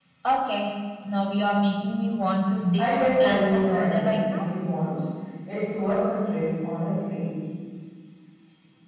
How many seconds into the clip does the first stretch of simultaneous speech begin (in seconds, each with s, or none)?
2.8 s